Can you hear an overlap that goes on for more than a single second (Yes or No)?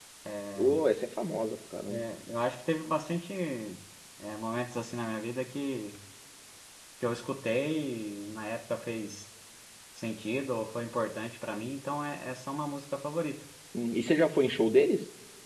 No